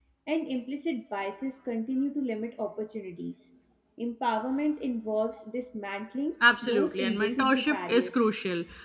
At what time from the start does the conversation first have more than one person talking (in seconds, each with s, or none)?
6.4 s